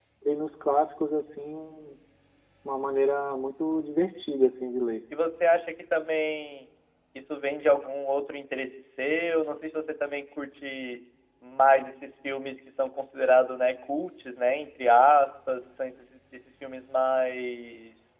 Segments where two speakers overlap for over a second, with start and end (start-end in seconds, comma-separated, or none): none